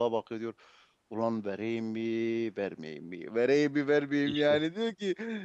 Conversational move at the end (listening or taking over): listening